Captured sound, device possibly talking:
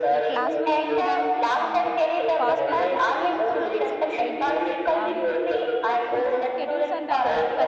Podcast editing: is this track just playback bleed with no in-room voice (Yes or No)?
No